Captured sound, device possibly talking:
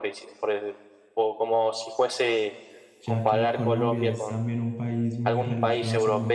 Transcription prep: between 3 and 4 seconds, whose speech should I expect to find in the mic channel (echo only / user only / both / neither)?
both